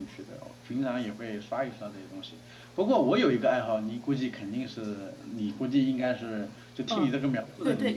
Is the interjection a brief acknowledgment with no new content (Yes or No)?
No